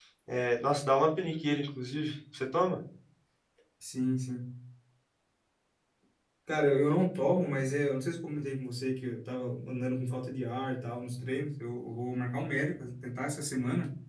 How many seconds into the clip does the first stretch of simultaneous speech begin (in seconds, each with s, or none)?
none